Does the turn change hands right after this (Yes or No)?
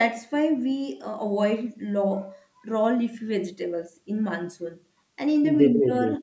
No